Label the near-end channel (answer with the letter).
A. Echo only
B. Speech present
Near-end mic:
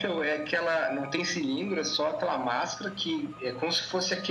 A